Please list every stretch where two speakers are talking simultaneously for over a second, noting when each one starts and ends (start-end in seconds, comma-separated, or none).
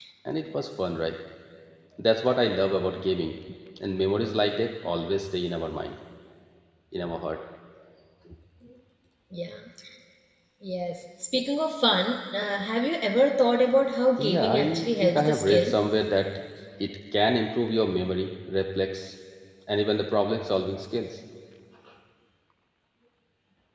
14.2-15.8